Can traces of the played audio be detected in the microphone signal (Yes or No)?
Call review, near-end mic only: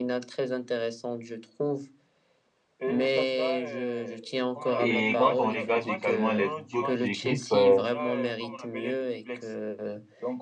Yes